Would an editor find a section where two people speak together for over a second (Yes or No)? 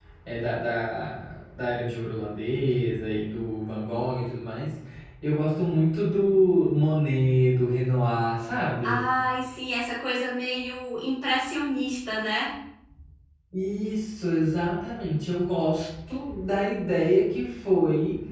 No